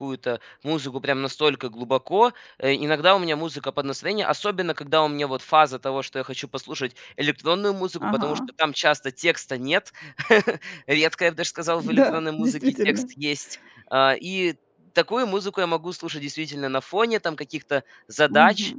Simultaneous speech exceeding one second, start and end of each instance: 11.8-13.0

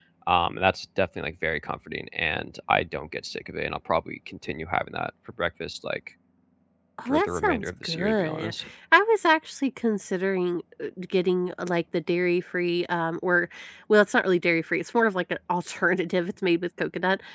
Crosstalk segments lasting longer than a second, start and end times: 7.1-8.5

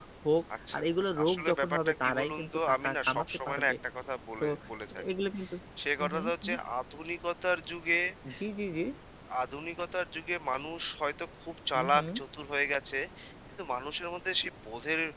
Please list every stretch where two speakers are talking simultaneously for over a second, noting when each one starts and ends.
1.2-3.7

